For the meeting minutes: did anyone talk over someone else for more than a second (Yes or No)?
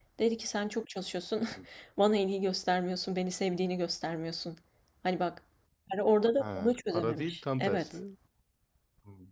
Yes